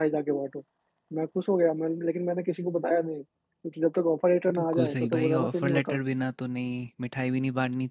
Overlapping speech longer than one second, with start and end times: 4.5-6.0

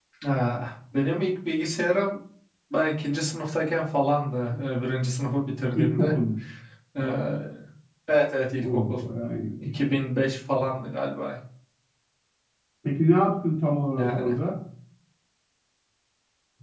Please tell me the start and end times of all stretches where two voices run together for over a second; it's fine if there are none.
none

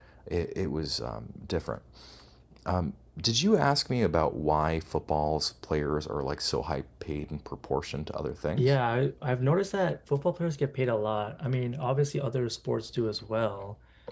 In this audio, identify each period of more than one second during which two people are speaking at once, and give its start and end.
none

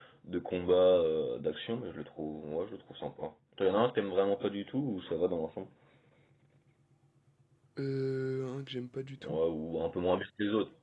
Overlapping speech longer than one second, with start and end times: none

